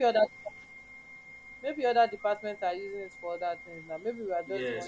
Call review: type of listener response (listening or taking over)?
taking over